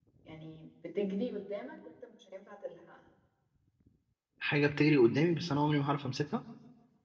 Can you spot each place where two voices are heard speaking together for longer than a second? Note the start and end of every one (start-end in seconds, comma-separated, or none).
none